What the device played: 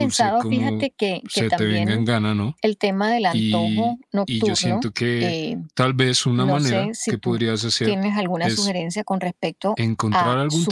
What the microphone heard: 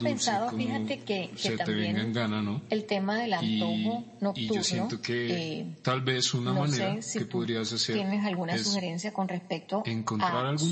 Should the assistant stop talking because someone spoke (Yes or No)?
No